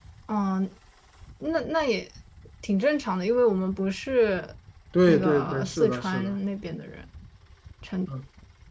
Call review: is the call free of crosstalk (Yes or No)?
No